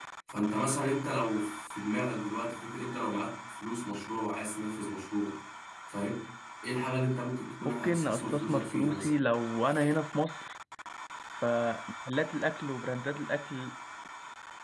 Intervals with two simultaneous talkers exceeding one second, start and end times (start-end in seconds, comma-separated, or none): 7.6-9.1